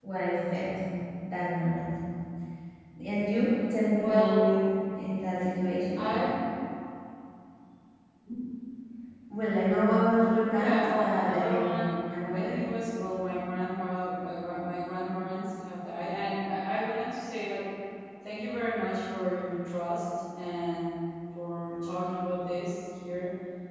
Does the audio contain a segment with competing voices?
Yes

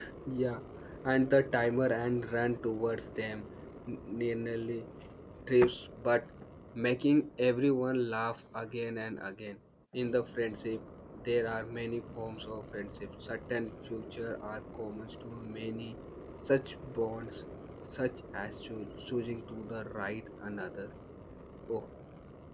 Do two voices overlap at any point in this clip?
No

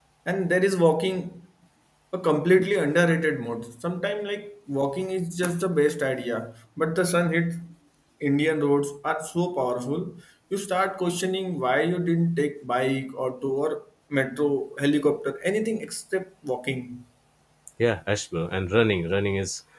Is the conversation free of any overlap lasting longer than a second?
Yes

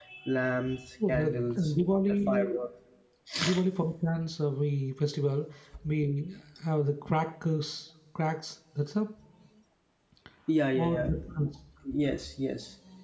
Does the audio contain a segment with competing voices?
Yes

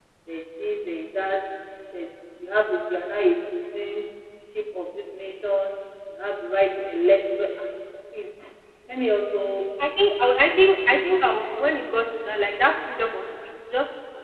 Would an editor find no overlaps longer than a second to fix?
Yes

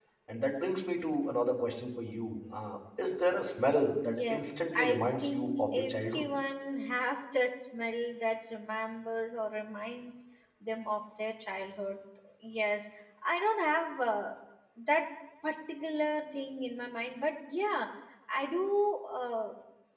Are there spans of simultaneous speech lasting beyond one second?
Yes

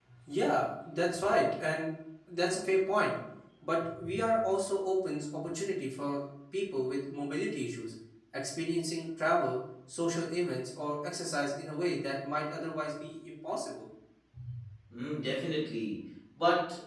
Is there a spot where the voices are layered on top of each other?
No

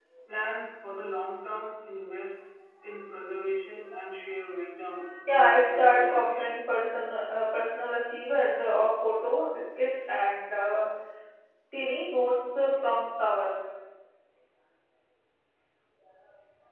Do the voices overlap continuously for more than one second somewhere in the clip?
Yes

